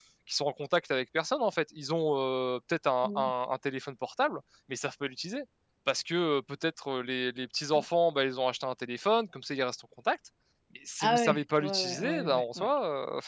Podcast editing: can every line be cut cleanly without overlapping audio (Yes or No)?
No